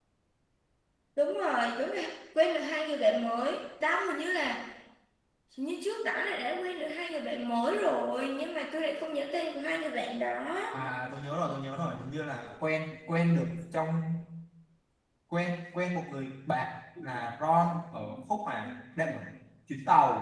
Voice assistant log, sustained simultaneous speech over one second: none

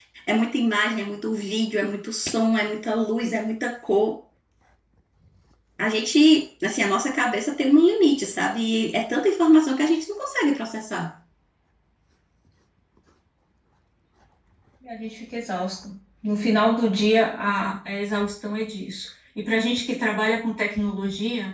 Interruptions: none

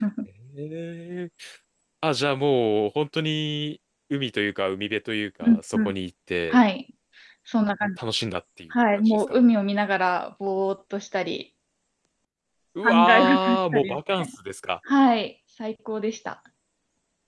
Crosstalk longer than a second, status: present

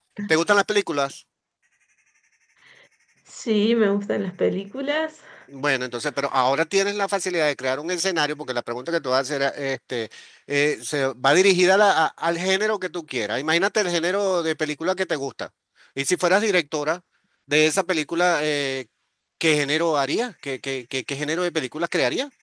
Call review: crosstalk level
none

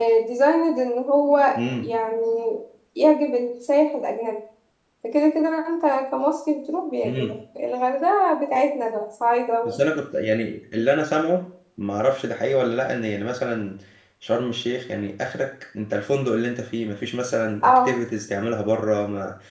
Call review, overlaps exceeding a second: none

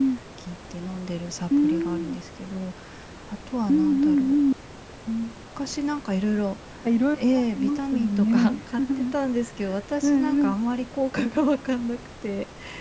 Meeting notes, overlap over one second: present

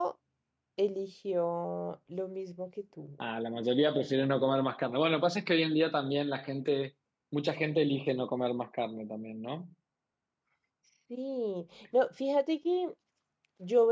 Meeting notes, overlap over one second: none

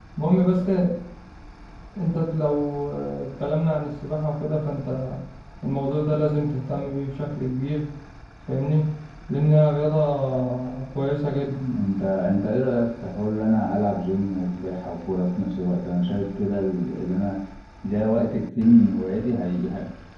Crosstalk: none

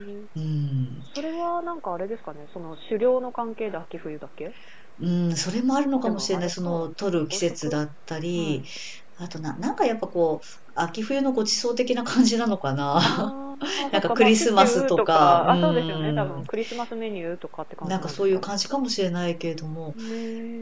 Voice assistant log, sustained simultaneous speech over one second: present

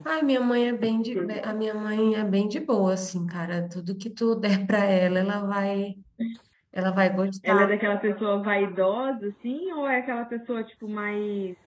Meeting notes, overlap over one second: none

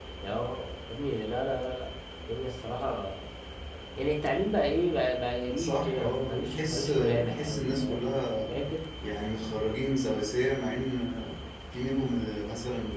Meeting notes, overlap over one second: present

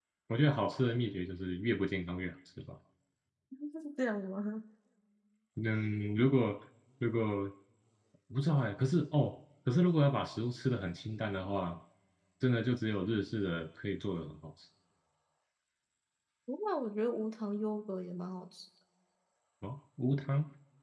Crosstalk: none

